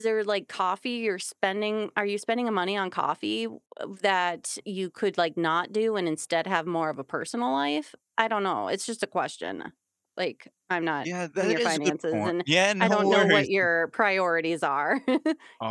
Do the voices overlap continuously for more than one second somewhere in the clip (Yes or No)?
Yes